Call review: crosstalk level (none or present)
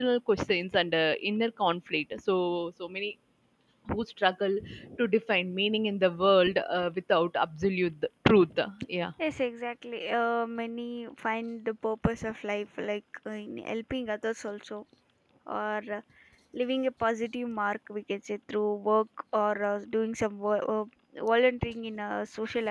none